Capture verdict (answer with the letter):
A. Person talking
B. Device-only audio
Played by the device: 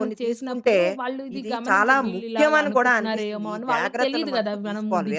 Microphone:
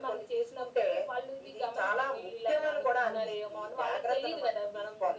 A